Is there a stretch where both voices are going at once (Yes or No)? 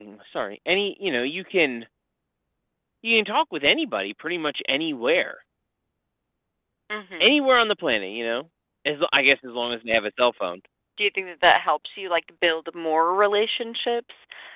No